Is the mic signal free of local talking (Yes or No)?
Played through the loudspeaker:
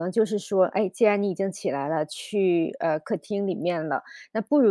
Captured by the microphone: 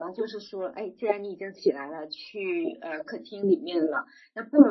Yes